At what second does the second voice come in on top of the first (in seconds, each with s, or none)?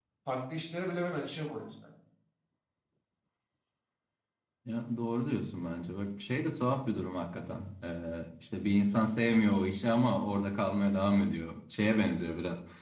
none